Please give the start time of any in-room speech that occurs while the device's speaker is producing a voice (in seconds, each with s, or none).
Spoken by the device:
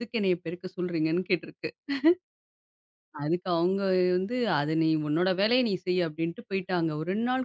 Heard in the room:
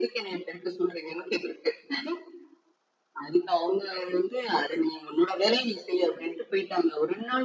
none